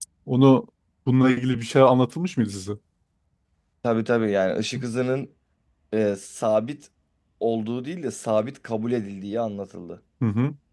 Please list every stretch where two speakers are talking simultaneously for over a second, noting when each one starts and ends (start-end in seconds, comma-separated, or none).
none